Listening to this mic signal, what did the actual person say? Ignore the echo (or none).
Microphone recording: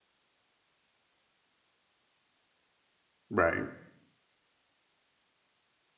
Right,